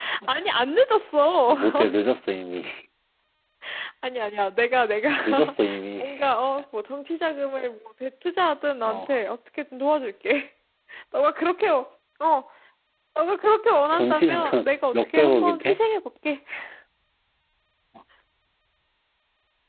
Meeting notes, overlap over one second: present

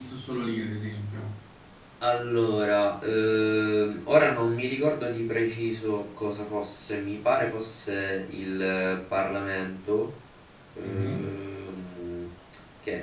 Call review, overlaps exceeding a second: none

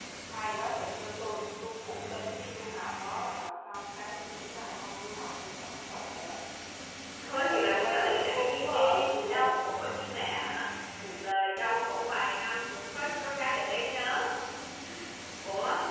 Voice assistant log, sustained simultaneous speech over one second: present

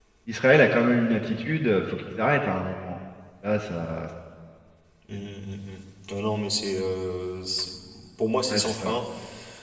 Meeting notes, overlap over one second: none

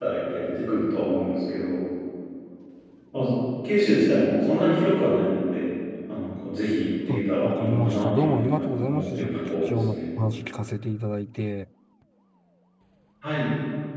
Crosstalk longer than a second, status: present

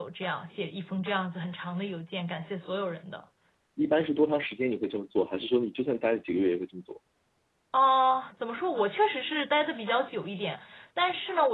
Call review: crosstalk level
none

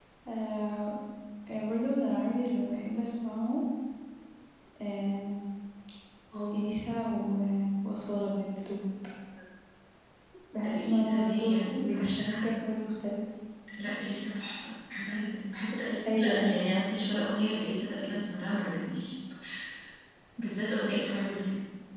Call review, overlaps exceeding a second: present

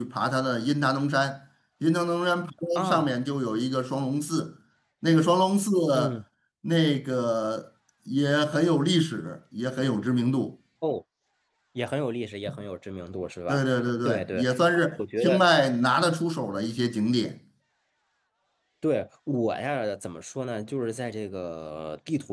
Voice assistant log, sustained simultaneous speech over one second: none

